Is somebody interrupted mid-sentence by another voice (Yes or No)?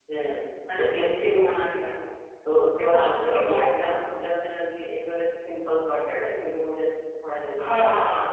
Yes